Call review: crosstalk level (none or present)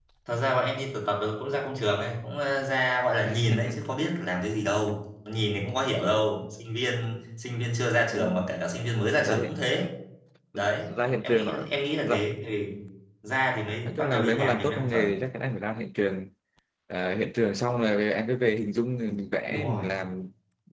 present